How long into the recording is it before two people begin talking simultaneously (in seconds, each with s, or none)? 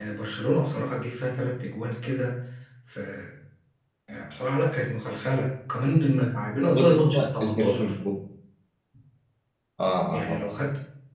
6.7 s